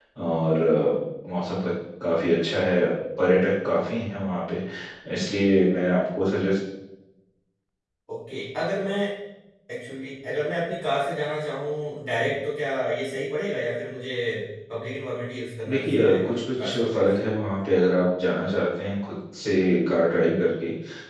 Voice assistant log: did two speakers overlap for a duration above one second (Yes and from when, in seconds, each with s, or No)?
Yes, from 15.7 s